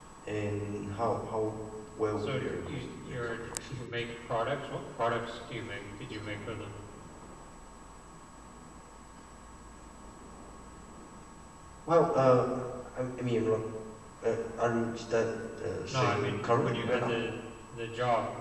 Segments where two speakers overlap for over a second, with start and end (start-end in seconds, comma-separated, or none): 2.2-3.6, 15.9-17.1